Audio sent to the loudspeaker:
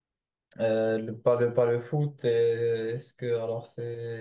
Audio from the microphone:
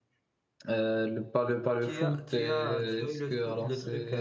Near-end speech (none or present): present